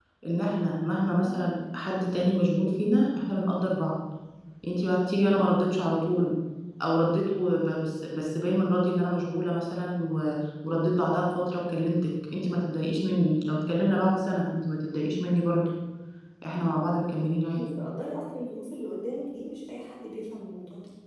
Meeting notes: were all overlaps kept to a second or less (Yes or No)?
Yes